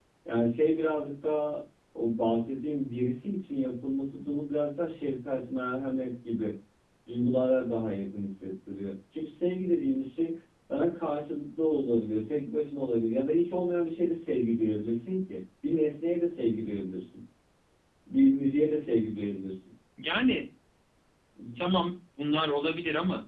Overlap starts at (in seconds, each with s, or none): none